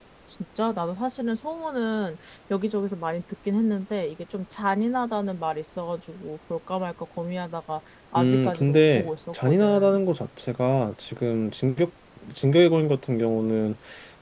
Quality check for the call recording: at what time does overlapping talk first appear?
8.2 s

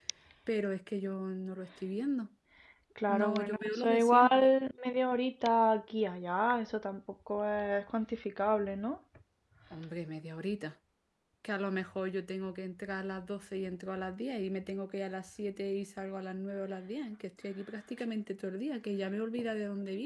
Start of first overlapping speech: 3.1 s

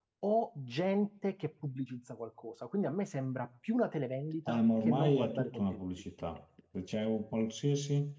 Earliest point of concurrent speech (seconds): 4.4 s

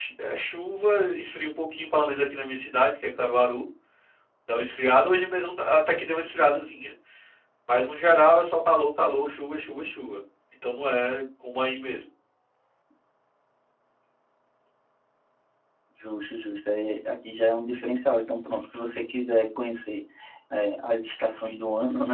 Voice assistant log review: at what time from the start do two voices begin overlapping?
none

